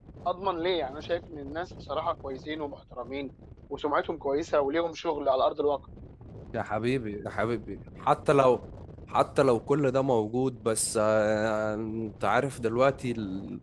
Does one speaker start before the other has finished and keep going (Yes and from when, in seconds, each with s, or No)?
No